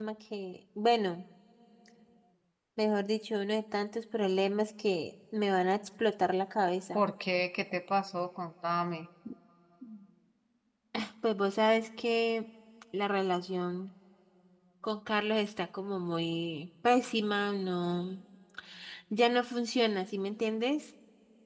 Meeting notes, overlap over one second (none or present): none